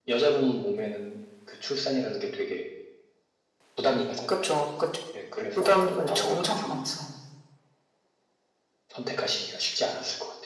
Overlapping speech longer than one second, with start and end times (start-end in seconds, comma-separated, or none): 5.6-6.8